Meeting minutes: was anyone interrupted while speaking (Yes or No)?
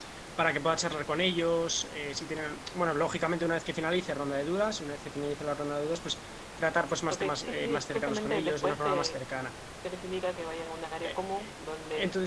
Yes